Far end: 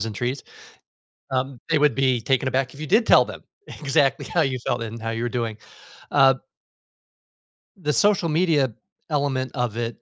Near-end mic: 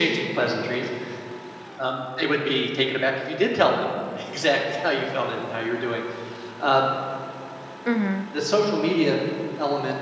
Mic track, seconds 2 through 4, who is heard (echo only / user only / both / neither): echo only